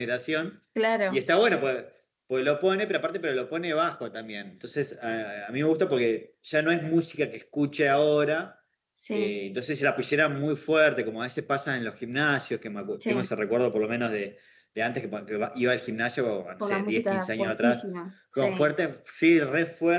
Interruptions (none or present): present